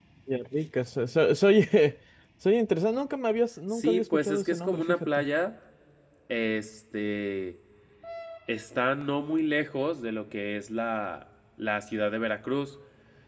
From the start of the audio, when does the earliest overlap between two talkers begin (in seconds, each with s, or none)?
3.7 s